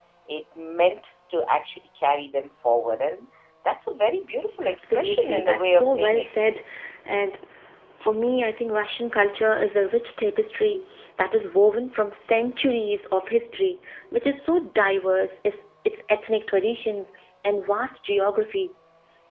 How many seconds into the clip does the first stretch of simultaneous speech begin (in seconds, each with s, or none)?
4.6 s